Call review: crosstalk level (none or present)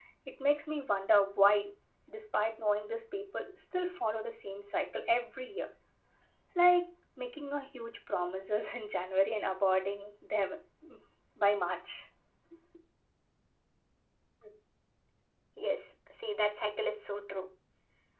none